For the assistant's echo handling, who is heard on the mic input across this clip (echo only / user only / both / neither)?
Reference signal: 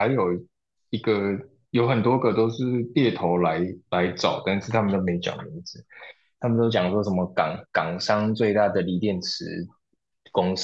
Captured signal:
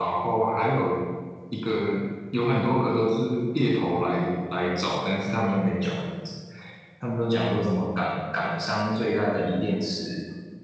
echo only